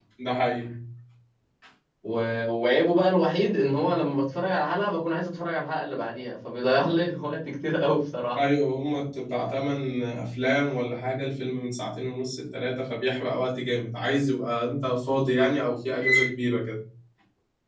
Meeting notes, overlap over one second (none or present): none